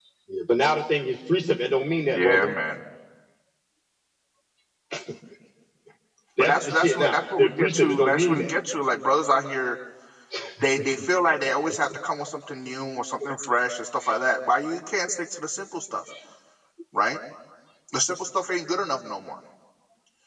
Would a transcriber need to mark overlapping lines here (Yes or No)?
Yes